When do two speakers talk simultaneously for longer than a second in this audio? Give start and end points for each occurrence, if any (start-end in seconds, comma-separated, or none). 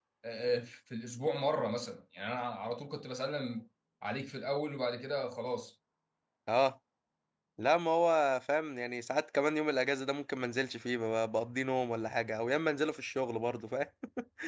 none